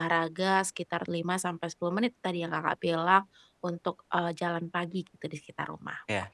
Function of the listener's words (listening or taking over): taking over